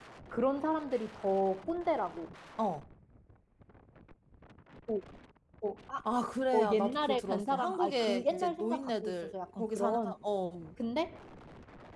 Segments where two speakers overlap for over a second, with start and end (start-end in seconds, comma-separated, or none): 6.5-10.1